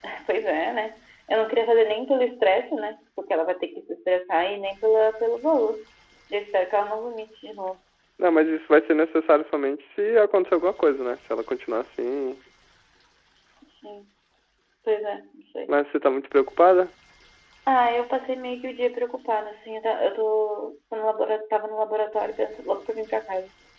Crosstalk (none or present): none